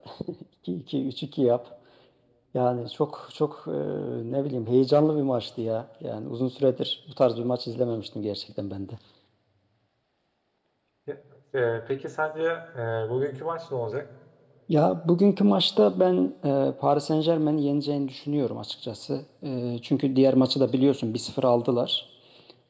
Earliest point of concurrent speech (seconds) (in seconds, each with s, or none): none